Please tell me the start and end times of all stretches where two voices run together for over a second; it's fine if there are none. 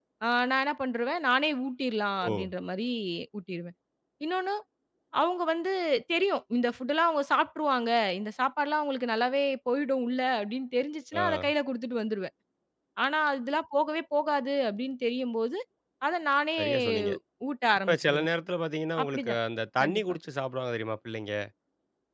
none

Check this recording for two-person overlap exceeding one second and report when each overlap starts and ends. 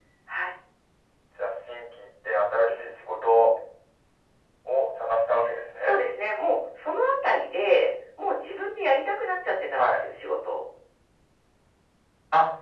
none

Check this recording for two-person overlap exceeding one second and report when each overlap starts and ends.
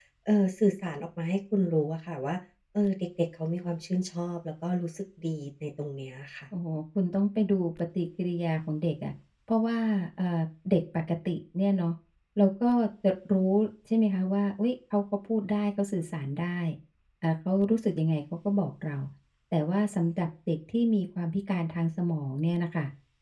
none

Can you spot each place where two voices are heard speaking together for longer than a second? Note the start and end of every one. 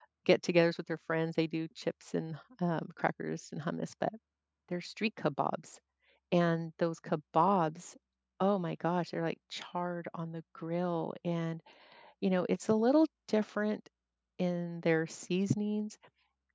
none

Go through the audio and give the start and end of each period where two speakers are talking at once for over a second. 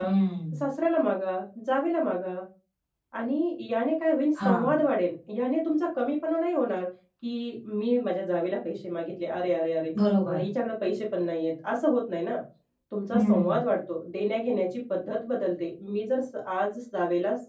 none

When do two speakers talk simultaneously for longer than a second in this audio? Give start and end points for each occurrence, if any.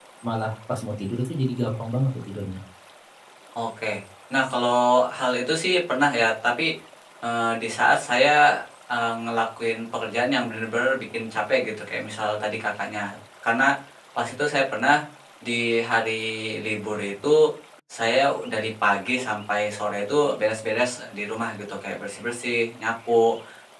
none

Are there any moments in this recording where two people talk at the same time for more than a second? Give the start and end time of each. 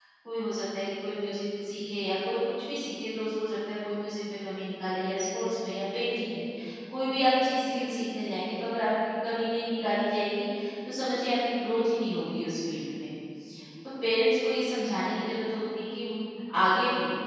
none

